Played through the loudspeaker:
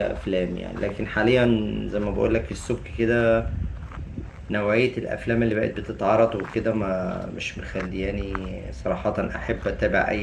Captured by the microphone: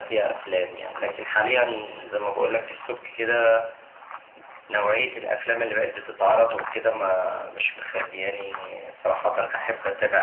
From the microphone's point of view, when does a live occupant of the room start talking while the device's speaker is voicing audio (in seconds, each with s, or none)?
none